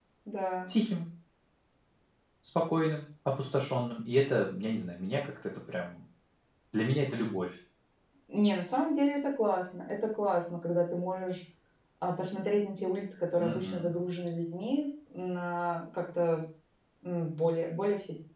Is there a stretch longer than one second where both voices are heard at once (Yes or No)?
No